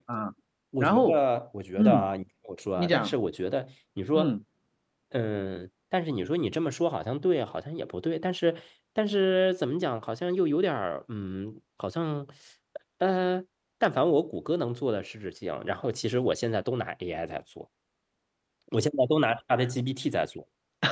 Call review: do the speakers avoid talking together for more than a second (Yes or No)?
Yes